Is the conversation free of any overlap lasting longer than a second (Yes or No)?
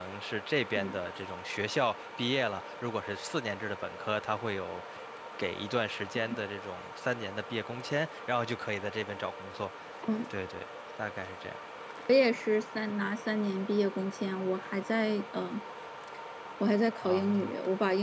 Yes